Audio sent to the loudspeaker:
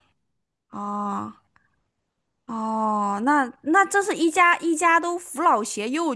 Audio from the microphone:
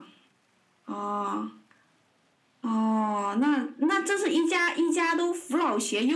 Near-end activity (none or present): none